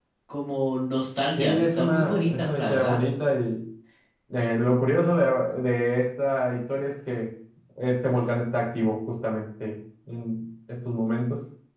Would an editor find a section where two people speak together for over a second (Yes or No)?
Yes